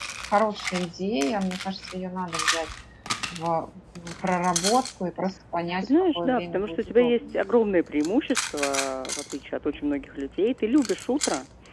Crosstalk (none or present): present